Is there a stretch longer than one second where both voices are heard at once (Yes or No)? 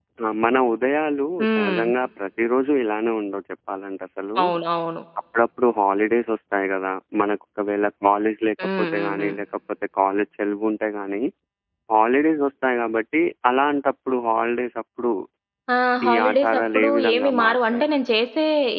Yes